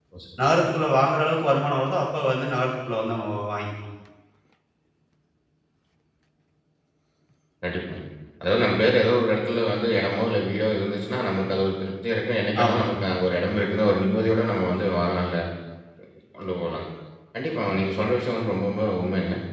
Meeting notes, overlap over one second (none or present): none